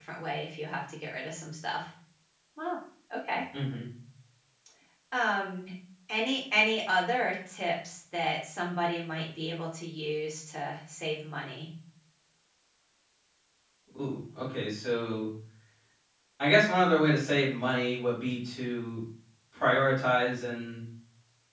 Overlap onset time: none

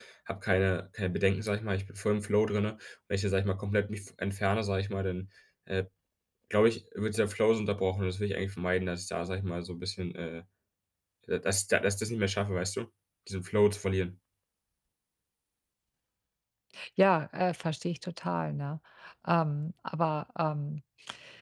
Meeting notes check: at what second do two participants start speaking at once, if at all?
none

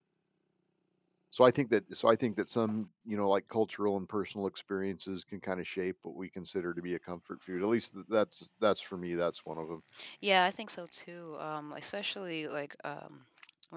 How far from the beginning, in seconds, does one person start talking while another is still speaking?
none

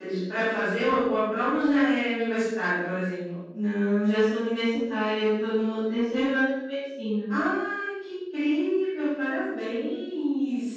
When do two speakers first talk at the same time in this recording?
none

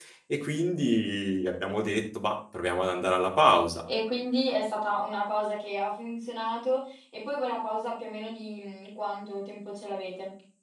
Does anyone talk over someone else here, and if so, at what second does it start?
none

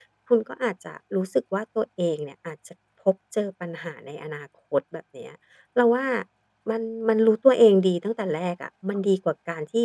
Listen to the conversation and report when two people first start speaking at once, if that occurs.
none

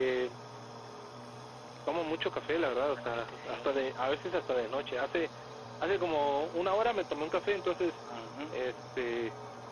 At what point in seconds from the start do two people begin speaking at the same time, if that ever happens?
3 s

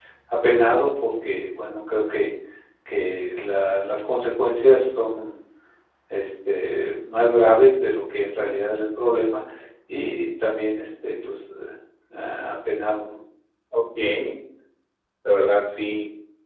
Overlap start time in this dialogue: none

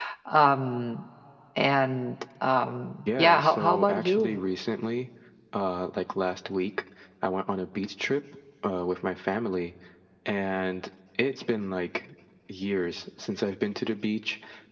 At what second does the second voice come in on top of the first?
3 s

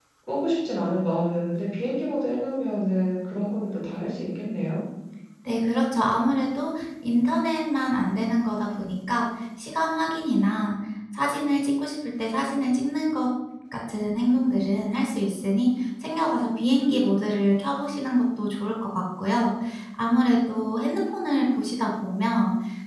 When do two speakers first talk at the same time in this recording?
none

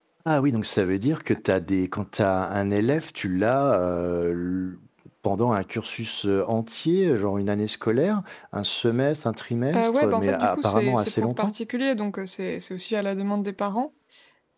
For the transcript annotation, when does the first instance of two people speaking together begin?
10 s

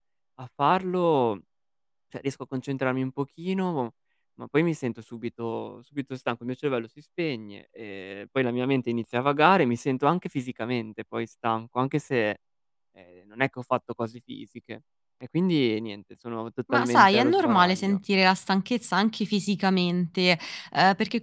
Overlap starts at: 17 s

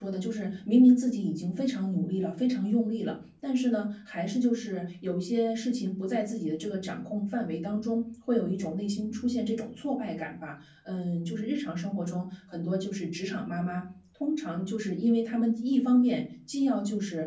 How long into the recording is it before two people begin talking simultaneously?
none

